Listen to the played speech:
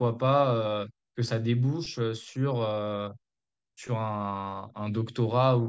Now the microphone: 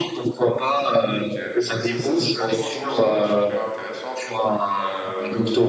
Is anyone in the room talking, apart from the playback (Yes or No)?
Yes